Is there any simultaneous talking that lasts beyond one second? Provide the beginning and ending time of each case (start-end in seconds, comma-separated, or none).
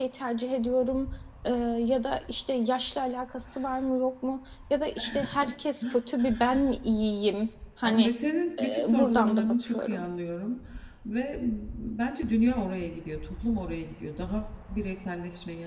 8.6-10.1